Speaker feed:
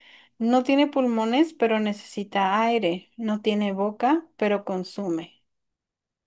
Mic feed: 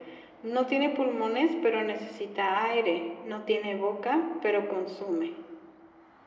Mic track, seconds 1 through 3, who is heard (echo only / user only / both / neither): echo only